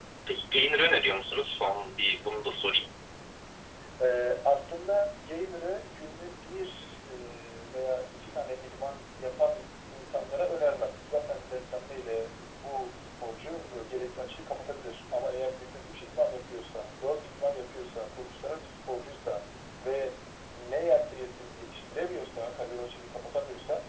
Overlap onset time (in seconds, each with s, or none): none